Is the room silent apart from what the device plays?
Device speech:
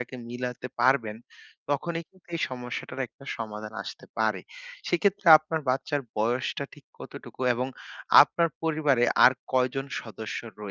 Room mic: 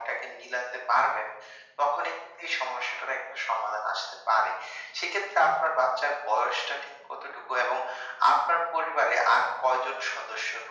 Yes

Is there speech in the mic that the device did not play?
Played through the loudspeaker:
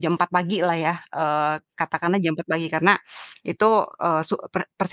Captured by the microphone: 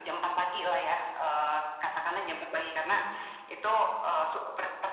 No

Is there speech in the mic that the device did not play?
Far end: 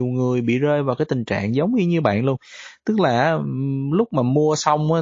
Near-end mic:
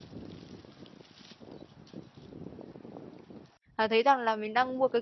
Yes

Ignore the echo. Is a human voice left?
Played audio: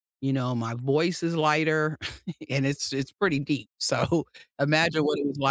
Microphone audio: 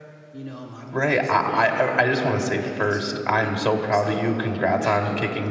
Yes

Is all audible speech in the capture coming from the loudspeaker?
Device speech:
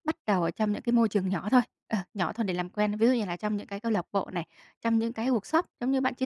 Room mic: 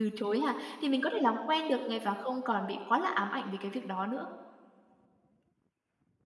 No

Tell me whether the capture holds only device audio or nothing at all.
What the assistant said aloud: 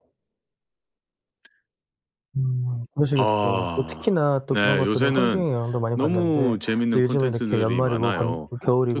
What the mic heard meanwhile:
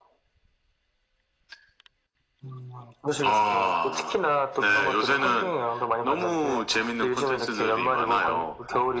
Yes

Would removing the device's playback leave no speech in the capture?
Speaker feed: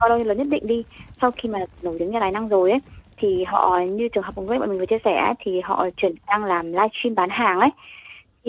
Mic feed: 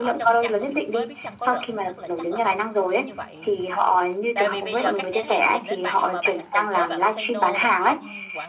No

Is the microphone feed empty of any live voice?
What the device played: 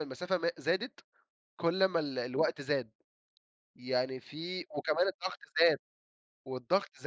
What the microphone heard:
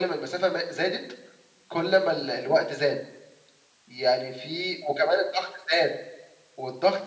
Yes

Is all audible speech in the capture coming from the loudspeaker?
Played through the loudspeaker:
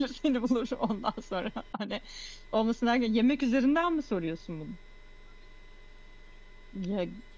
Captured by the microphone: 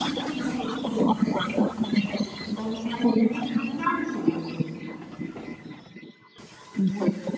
Yes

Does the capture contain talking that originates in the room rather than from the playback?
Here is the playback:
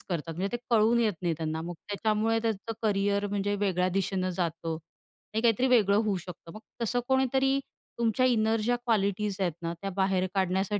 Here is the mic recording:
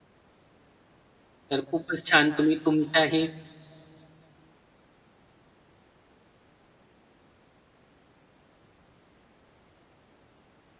Yes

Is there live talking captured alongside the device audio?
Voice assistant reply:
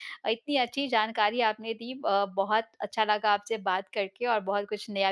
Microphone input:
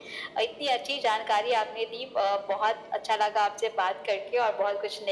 No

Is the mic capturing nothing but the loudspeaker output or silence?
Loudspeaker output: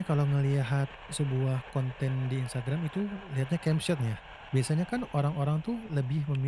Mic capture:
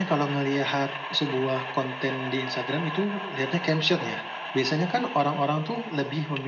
Yes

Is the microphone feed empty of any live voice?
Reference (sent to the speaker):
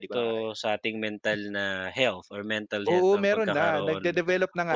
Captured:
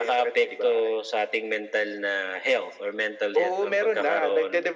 Yes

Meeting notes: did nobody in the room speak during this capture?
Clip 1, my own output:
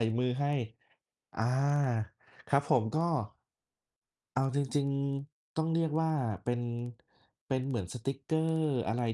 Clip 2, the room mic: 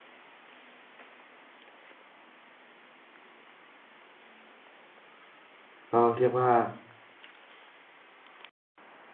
No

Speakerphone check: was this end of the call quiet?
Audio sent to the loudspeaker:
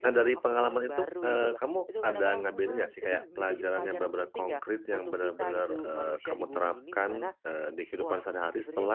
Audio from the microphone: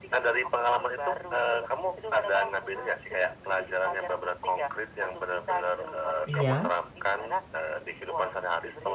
No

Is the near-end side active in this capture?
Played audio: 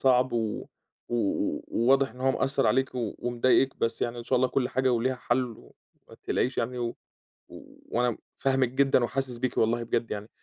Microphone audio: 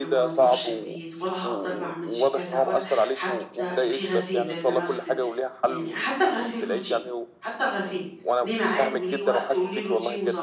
Yes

